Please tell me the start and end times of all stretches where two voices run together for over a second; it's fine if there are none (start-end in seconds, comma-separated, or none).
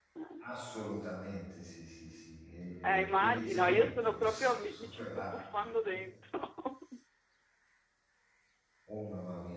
2.8-5.4